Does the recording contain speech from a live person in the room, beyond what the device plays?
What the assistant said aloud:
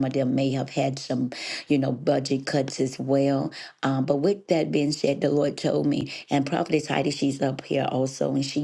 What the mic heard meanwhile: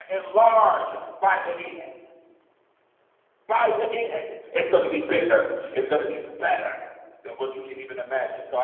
Yes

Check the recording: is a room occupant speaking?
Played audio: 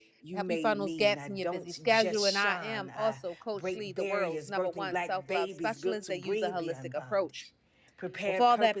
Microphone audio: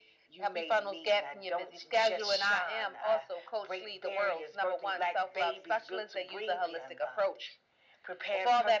No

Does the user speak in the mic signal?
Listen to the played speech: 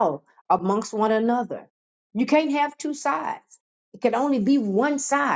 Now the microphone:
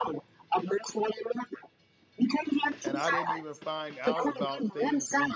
Yes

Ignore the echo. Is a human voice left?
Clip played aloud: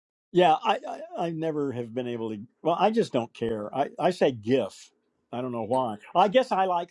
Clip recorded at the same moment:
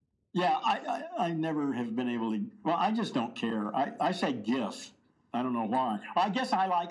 No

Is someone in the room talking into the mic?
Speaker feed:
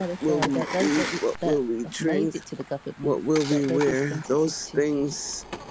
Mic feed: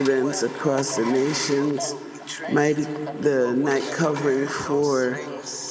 Yes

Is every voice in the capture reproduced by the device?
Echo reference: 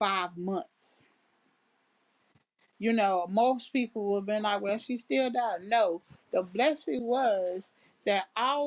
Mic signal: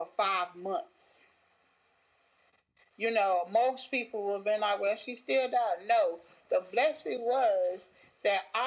Yes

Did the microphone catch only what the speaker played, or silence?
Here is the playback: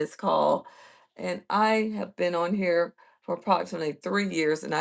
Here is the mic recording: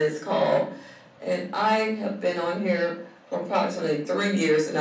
Yes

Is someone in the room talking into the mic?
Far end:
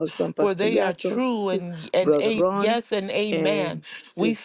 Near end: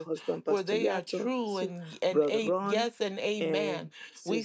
No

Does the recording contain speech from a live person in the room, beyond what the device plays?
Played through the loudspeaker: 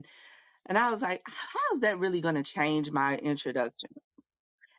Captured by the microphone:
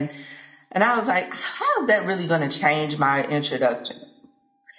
No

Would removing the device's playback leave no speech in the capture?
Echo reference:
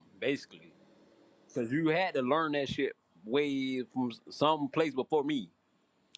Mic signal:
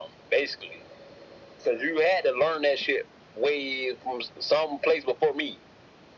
Yes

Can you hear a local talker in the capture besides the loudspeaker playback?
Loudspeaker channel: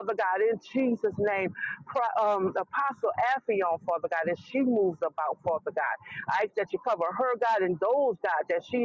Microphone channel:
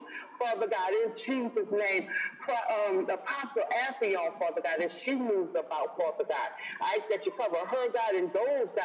No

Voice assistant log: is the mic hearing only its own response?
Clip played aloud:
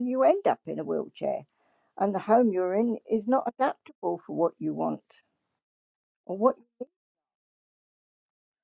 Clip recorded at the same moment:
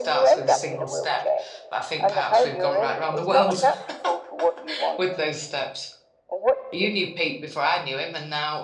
No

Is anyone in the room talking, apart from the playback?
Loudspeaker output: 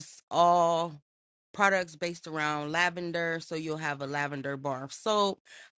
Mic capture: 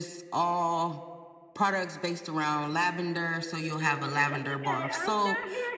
Yes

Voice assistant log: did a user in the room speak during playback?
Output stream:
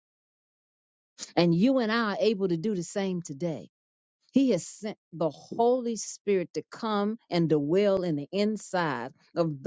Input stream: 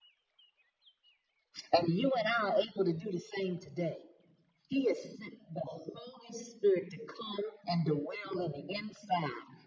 No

